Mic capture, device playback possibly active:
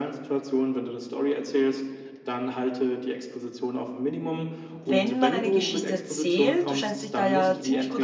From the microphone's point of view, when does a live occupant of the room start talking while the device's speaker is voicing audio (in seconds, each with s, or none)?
4.7 s